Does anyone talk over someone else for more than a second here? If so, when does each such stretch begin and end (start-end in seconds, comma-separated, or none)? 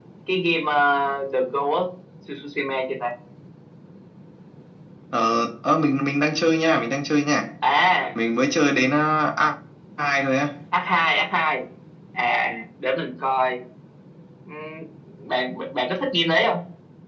none